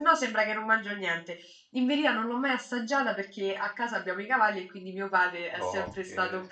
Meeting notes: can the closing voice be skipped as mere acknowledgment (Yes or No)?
Yes